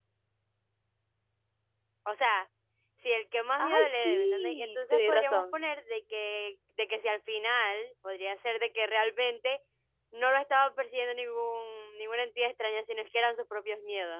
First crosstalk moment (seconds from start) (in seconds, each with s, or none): 3.6 s